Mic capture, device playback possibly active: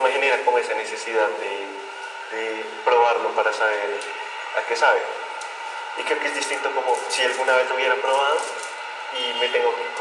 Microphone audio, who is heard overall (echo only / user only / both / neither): echo only